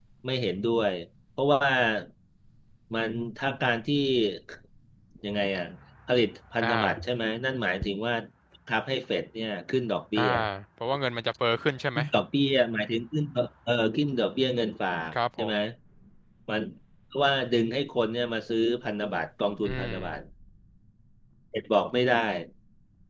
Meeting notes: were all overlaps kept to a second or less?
Yes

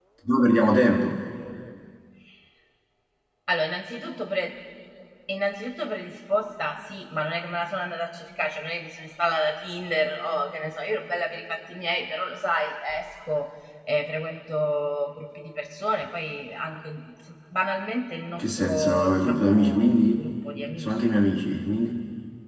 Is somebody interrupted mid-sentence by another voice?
Yes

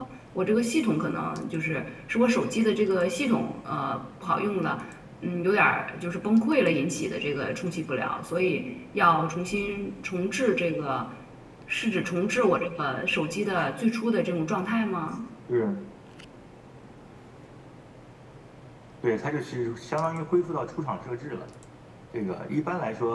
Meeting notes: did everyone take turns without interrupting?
Yes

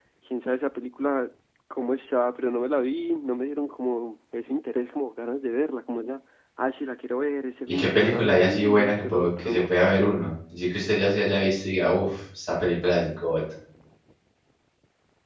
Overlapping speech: Yes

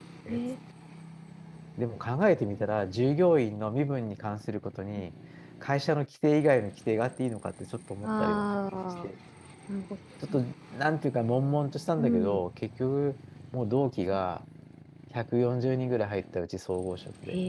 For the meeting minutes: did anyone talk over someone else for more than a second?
No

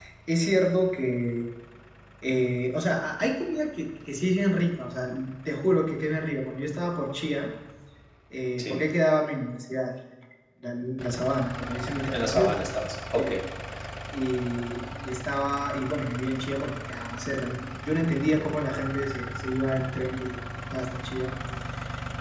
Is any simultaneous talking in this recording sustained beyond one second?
No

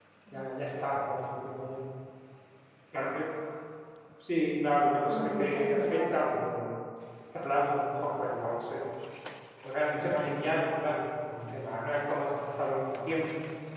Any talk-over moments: Yes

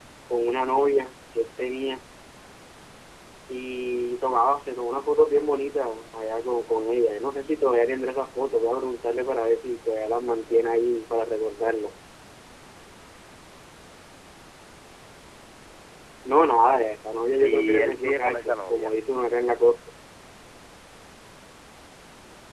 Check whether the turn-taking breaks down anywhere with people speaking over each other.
Yes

